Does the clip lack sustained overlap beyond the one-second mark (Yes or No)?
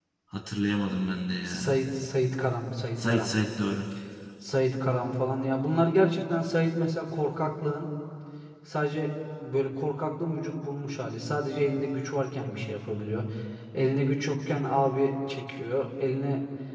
Yes